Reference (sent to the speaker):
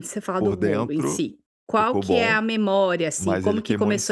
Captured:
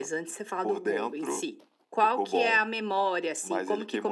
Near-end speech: none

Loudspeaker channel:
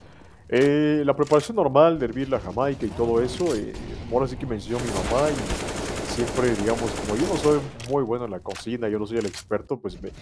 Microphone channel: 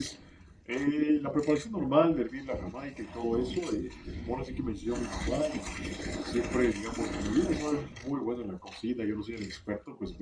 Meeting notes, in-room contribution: none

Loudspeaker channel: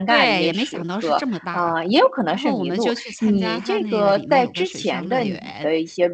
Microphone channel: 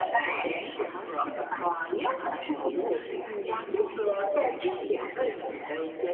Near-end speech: none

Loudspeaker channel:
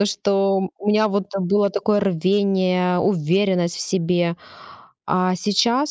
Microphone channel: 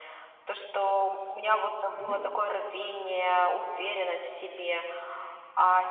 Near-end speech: present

